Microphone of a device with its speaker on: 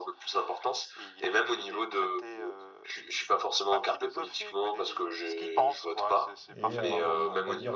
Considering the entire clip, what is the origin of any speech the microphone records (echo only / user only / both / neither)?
both